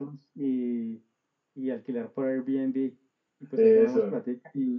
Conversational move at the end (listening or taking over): listening